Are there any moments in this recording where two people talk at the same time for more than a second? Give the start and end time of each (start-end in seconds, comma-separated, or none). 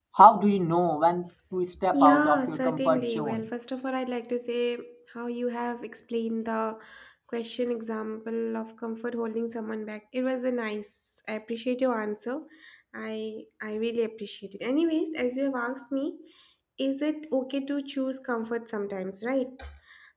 1.9-3.5